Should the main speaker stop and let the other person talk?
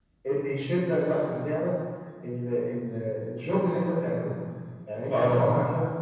No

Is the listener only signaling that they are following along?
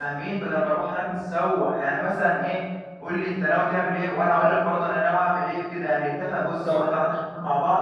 Yes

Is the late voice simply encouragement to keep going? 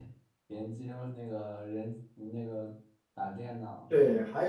No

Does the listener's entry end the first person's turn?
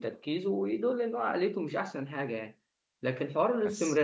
No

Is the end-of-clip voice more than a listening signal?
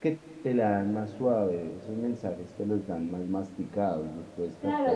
Yes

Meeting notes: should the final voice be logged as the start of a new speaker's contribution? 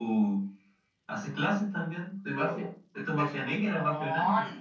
Yes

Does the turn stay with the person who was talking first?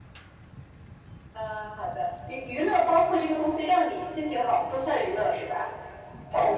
No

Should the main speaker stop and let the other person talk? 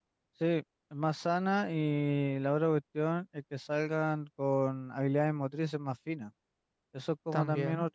No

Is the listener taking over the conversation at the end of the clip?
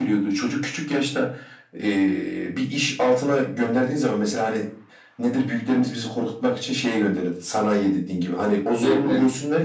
No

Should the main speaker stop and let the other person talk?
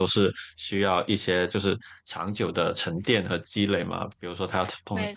No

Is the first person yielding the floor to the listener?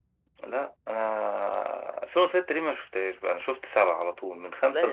Yes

